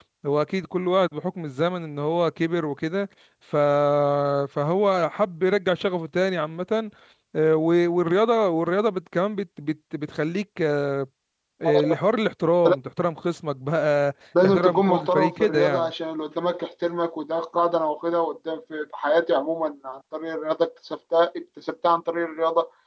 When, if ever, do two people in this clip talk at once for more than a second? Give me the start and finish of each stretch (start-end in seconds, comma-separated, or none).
14.4-15.9